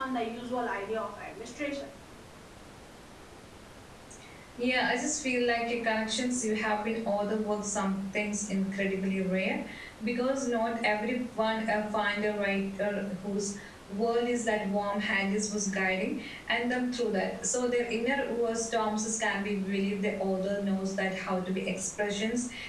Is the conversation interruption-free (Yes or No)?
Yes